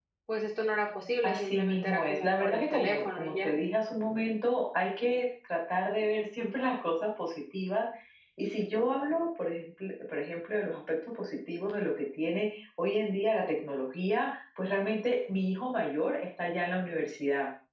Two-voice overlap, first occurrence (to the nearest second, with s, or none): 1 s